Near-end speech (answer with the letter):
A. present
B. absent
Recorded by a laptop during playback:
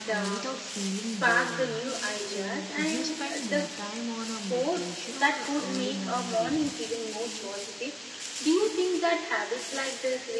A